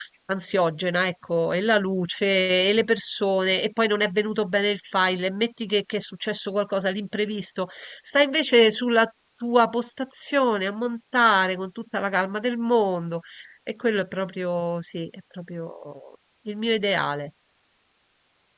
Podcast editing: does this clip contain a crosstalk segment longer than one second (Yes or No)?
No